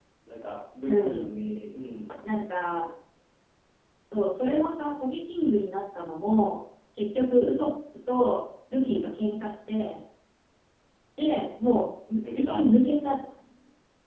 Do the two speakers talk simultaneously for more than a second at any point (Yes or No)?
No